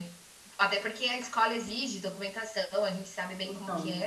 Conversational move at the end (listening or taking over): taking over